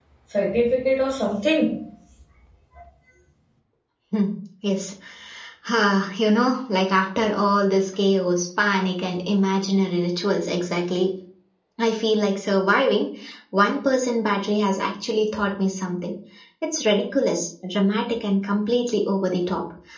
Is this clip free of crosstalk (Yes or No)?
Yes